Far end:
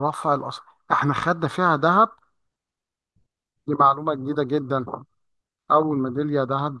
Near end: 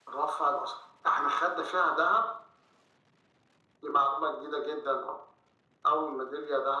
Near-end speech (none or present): none